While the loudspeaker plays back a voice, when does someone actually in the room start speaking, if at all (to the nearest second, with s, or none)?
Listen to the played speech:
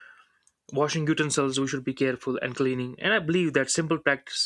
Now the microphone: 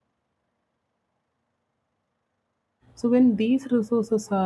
3 s